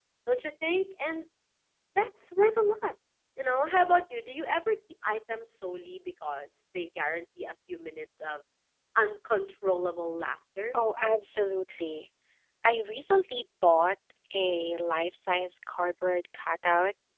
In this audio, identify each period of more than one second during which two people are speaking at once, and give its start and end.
none

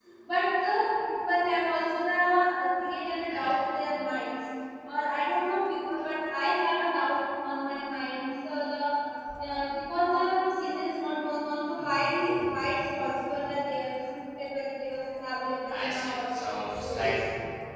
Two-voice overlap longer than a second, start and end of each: 15.7-17.1

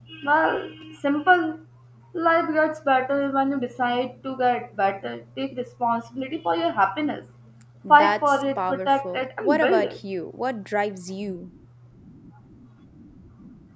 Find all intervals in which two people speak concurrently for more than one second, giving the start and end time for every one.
7.9-10.0

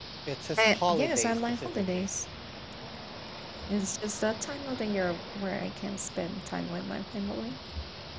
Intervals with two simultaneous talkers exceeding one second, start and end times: 0.6-2.1

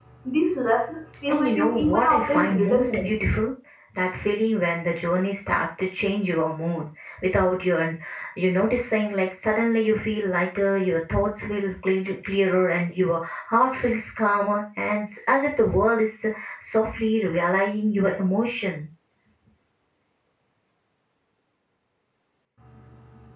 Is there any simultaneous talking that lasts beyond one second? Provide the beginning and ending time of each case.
1.3-3.0

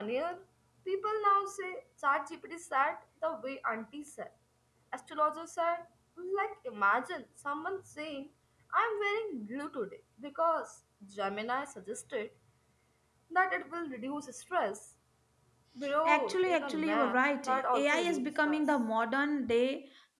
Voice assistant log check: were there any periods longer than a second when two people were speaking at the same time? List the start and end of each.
16.0-18.6

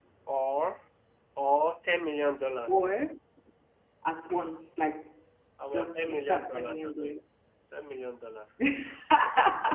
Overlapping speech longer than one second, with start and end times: 5.7-7.1

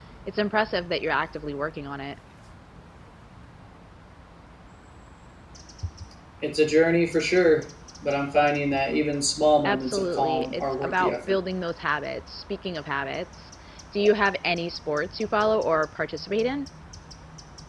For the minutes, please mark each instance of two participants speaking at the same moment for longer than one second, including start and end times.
9.6-11.4

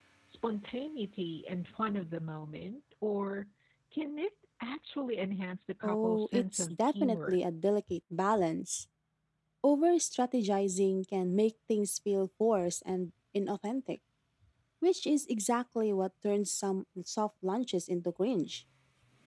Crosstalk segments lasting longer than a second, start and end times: 5.8-7.4

